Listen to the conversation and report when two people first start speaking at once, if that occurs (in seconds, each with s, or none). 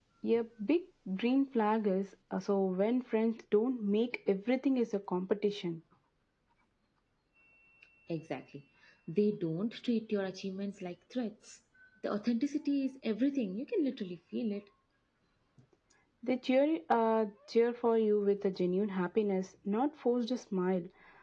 none